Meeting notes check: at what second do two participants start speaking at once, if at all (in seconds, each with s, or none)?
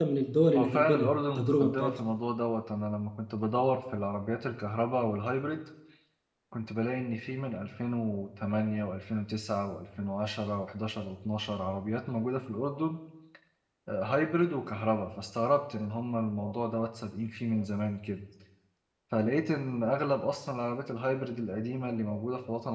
0.6 s